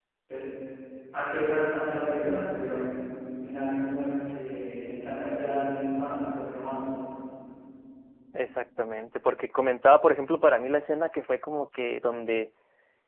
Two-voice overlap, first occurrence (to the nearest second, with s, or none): none